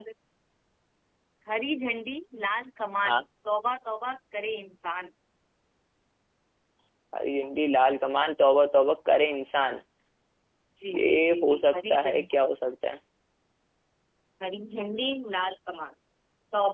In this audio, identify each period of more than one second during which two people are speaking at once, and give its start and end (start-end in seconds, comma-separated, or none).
11.0-12.2